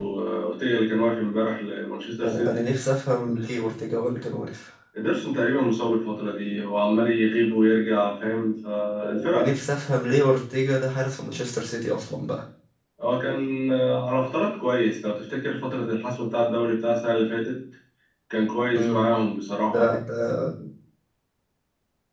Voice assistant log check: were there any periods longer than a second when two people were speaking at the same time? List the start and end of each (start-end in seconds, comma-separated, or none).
none